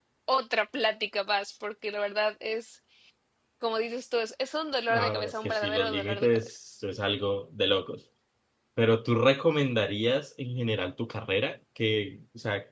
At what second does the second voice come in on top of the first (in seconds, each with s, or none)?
4.9 s